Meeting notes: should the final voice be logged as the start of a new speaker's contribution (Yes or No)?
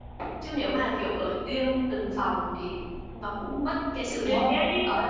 Yes